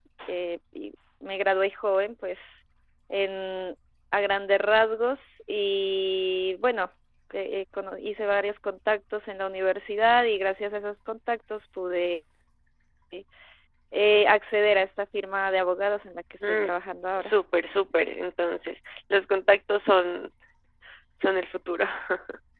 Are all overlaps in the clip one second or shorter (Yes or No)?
Yes